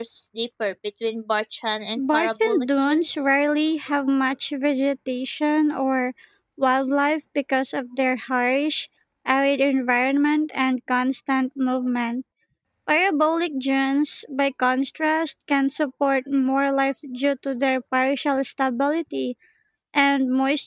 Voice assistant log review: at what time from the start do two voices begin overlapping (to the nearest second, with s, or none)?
2 s